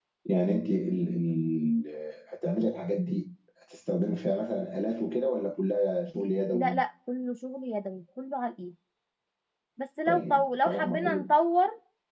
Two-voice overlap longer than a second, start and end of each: 10.1-11.3

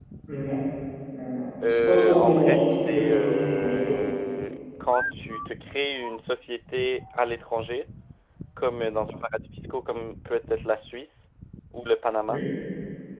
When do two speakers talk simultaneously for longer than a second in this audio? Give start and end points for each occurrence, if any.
1.9-3.9

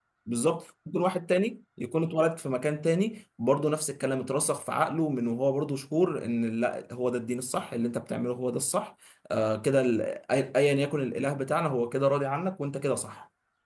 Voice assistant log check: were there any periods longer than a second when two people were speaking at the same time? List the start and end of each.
none

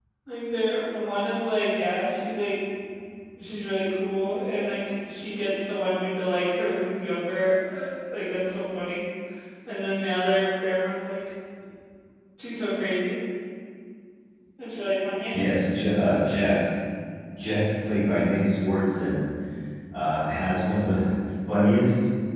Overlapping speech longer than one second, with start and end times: none

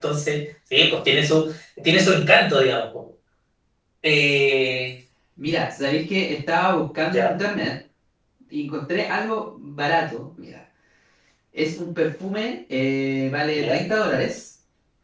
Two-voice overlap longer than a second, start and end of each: none

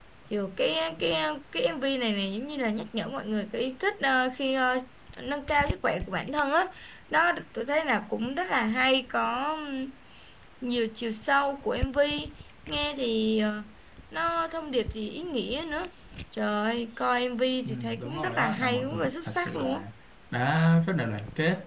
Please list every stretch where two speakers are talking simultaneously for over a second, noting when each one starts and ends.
17.6-19.8

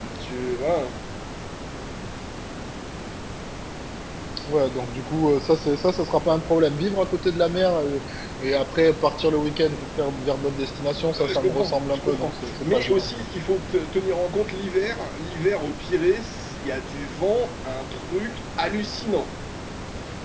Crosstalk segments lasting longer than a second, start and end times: 11.1-13.2

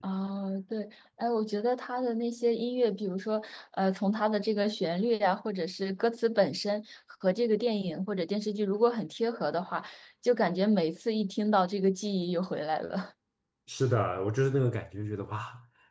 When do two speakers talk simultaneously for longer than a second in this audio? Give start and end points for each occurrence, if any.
none

